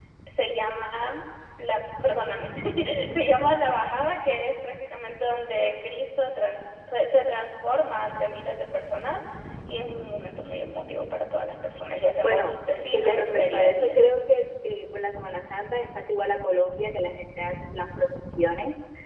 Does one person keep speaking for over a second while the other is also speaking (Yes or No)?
Yes